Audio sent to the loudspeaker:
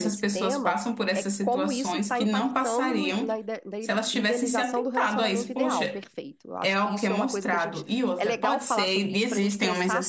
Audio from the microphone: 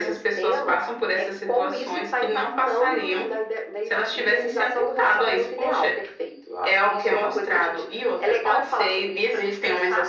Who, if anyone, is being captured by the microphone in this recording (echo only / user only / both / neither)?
echo only